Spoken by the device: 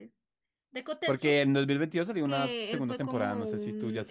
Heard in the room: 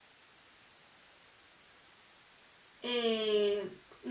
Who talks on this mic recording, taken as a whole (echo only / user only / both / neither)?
user only